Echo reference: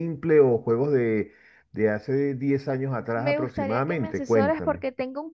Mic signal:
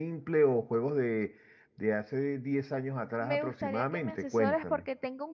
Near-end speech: none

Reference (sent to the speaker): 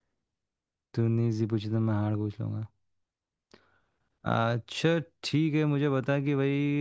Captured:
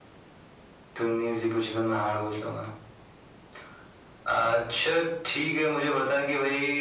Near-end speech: none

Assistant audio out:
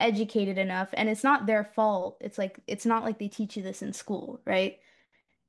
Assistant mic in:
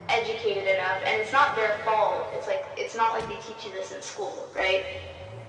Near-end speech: none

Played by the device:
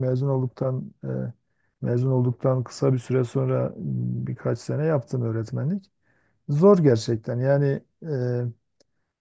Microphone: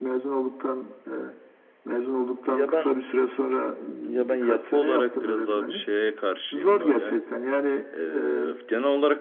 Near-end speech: present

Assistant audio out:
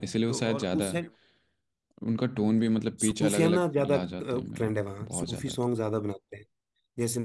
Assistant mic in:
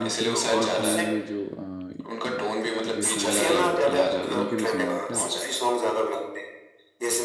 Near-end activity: present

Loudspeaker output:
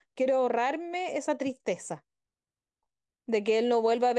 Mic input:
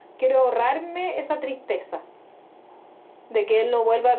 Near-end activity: none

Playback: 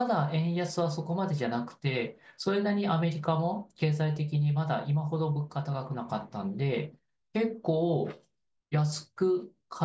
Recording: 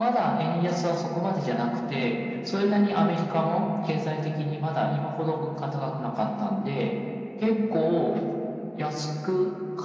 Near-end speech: none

